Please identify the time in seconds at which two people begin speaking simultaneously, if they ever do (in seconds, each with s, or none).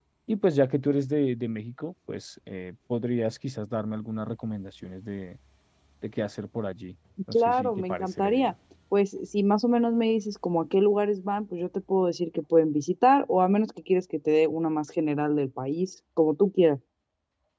7.3 s